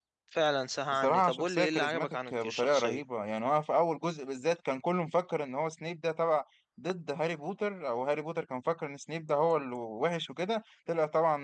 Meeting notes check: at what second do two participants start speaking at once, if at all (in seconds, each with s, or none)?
0.9 s